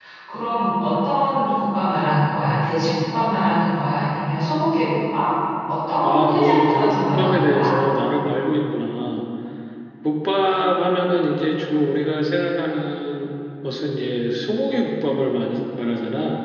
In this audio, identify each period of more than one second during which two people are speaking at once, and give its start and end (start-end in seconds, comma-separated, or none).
6.0-7.8